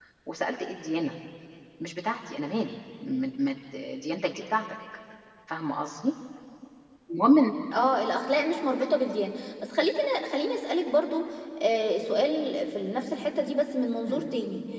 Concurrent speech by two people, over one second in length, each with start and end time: none

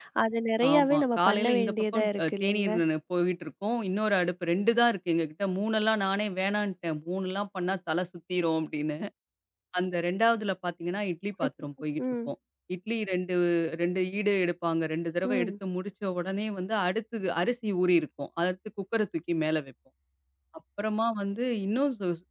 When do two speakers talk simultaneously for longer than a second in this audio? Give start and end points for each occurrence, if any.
0.7-2.7

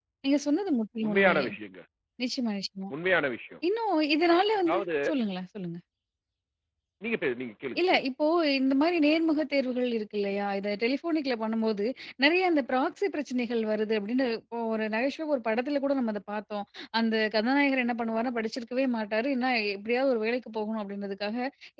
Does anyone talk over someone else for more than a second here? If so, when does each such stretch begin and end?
none

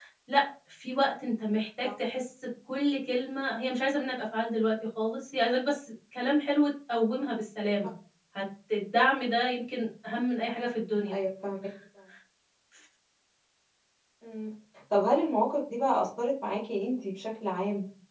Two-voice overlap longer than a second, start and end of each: none

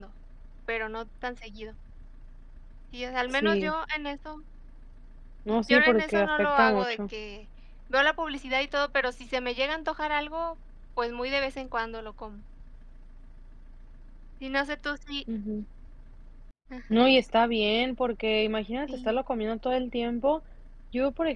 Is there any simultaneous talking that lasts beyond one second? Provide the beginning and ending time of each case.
5.7-7.0

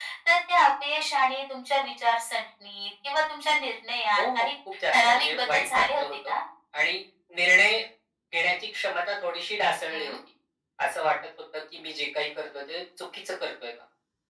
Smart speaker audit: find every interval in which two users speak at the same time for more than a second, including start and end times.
4.9-6.3

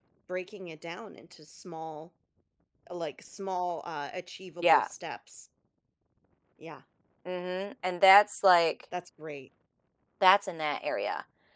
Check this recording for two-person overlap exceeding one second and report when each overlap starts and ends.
none

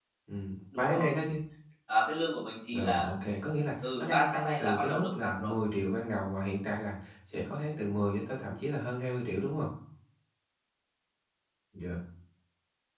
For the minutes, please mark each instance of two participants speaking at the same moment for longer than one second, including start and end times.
4.0-5.5

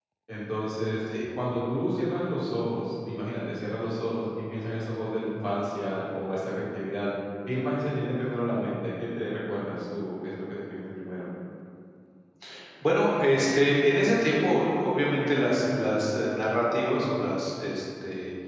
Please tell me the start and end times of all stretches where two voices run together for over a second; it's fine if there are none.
none

